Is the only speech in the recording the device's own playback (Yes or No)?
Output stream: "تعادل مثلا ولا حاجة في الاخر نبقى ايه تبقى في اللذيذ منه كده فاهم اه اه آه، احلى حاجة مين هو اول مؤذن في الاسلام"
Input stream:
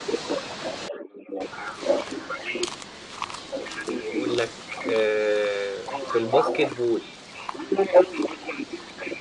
No